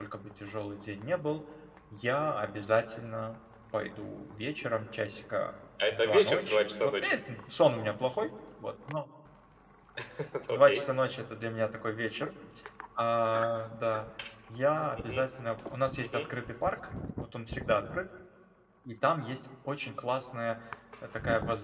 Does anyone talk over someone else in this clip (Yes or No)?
Yes